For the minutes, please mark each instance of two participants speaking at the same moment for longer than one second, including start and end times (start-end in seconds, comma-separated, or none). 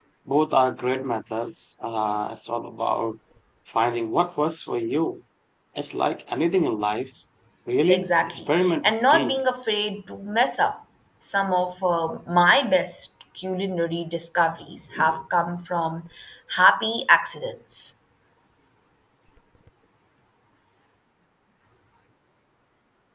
7.9-9.4